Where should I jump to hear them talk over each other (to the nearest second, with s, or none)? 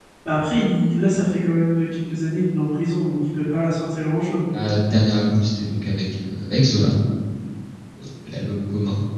none